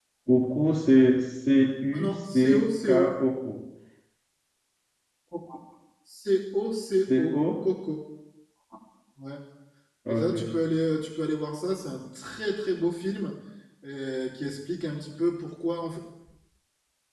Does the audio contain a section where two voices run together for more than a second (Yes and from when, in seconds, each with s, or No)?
Yes, from 1.9 s